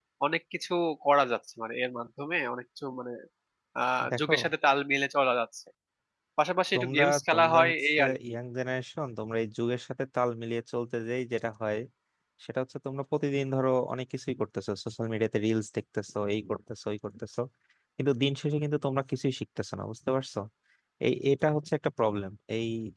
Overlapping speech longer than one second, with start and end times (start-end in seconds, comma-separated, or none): 6.7-8.1